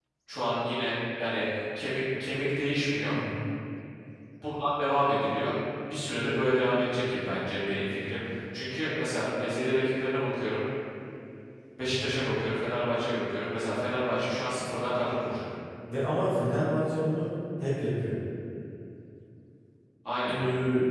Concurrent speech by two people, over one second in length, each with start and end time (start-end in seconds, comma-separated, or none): none